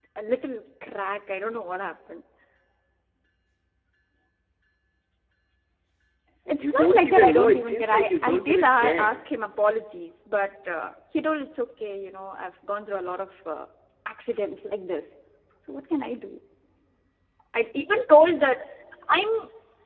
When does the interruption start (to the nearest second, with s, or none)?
6 s